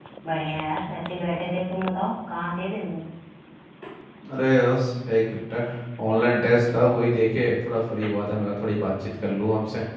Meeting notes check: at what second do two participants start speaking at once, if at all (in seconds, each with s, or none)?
none